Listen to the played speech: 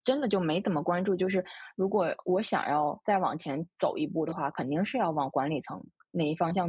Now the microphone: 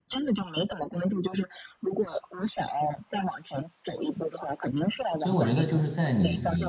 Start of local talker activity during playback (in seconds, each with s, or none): 5.2 s